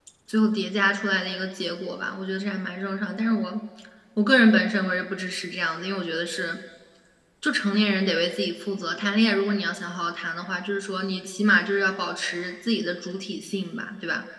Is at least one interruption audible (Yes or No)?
No